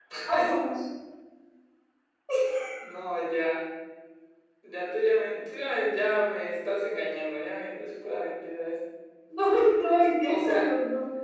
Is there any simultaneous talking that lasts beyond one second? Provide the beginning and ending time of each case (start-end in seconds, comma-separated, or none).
none